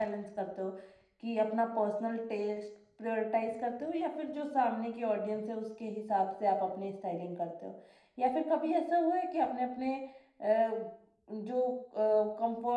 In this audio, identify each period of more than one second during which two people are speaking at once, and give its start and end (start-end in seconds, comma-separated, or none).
none